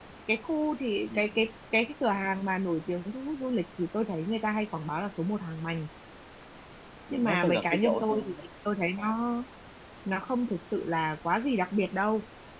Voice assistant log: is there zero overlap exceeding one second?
No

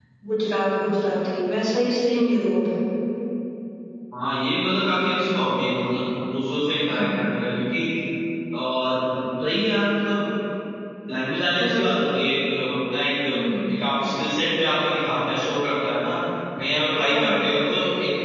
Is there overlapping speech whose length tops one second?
No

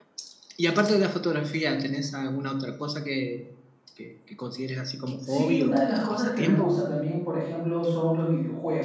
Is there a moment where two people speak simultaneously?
Yes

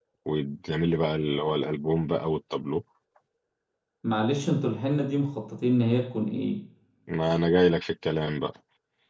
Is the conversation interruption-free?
Yes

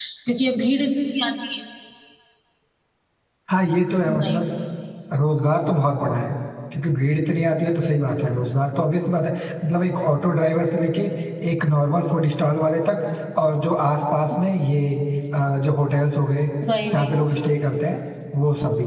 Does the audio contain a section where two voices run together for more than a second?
No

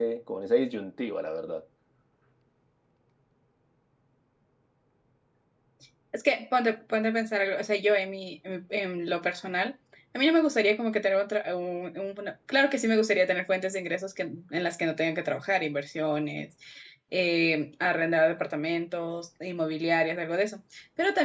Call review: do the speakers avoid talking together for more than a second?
Yes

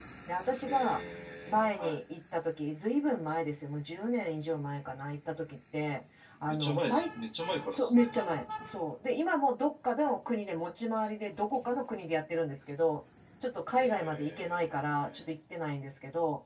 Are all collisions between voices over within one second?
No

